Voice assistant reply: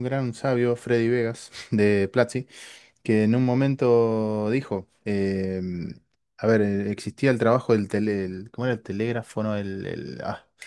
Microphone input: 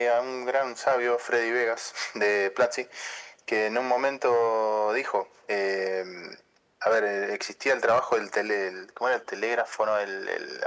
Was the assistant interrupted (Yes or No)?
No